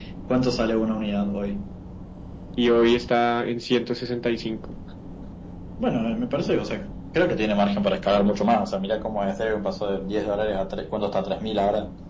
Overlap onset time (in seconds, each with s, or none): none